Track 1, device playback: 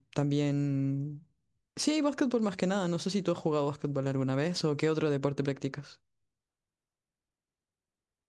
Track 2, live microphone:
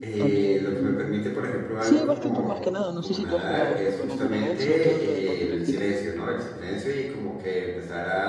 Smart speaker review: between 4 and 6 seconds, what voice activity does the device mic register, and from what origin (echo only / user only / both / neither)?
both